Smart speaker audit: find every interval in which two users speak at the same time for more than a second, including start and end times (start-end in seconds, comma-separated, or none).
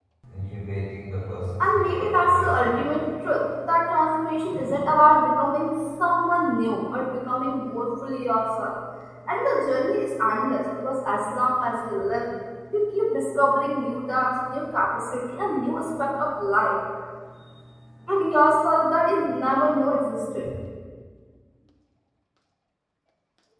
1.6-3.1